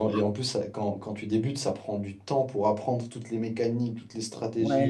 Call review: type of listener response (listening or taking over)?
taking over